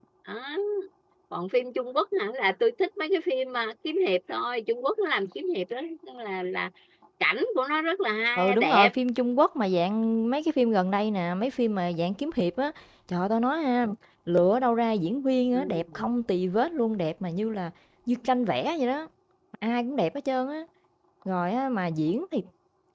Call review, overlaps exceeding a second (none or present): none